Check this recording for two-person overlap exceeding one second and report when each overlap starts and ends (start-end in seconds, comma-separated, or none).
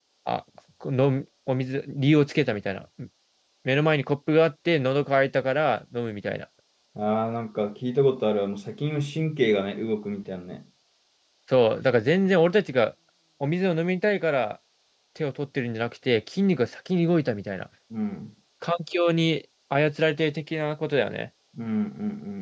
none